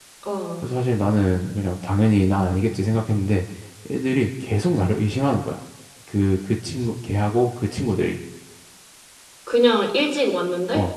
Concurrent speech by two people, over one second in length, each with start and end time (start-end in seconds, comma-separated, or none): none